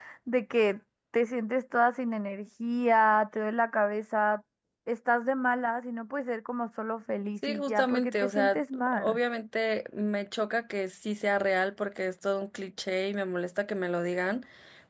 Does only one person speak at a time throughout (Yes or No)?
No